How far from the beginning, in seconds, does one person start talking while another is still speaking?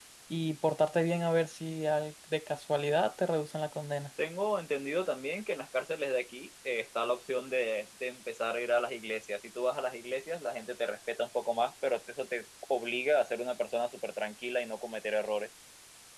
none

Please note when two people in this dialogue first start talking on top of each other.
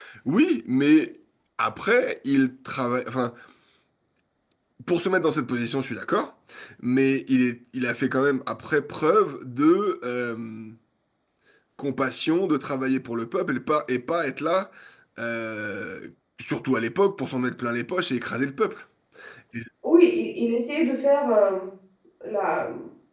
none

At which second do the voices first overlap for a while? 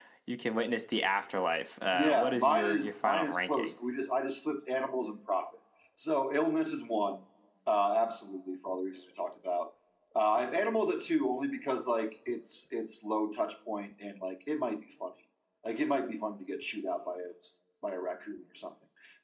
1.9 s

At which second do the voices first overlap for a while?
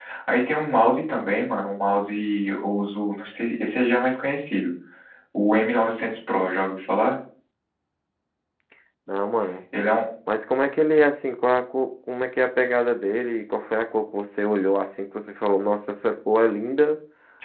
none

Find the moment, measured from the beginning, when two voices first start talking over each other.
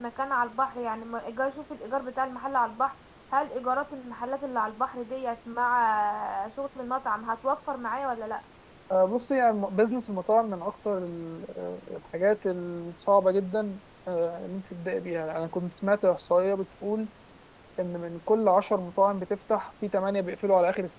none

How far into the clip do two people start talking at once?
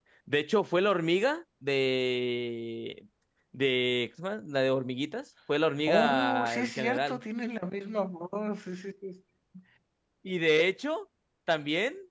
5.9 s

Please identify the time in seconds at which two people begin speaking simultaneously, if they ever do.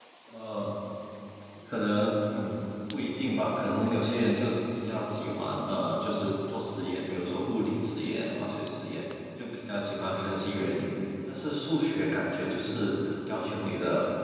none

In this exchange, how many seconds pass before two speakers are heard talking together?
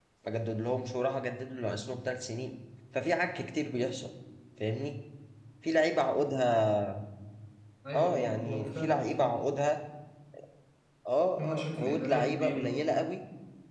7.9 s

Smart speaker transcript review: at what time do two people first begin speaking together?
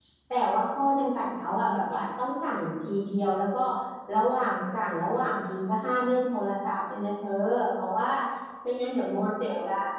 none

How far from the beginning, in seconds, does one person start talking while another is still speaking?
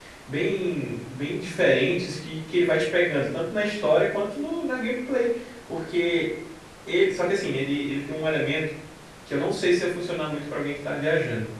none

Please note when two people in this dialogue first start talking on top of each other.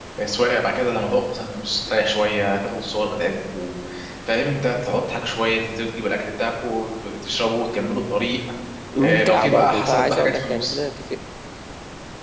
9.0 s

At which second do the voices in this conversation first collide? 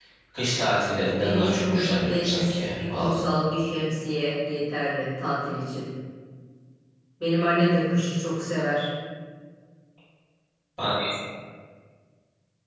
1.2 s

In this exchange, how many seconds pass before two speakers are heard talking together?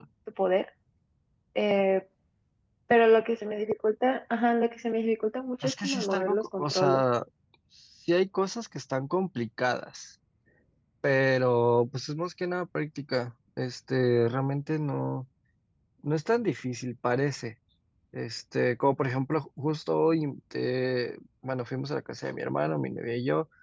5.6 s

